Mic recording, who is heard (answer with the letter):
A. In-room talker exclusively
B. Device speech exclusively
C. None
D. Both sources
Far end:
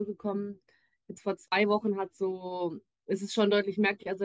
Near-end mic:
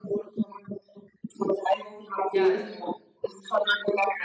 D